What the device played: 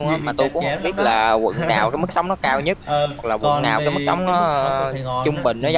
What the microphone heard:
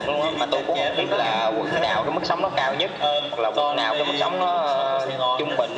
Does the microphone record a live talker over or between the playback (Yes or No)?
Yes